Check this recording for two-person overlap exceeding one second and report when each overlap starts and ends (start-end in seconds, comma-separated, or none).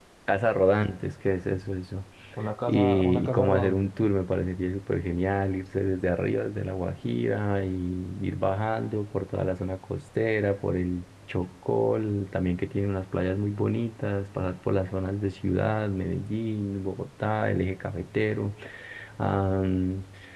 2.7-3.9